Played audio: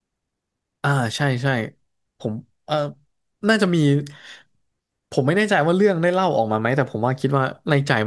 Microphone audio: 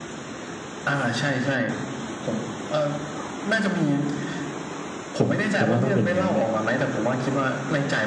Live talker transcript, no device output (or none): ผมผมว่าต้องเป็นงั้นน่ะ